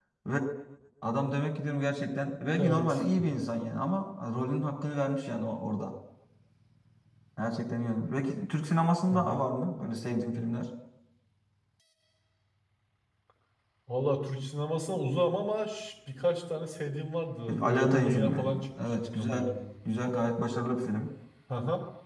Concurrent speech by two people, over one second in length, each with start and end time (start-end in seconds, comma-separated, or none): 17.5-19.4